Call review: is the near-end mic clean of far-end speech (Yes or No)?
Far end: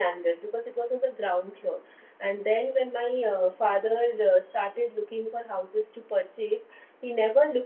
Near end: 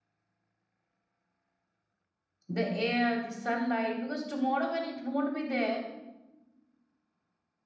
Yes